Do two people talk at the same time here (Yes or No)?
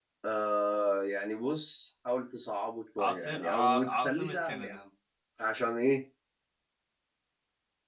Yes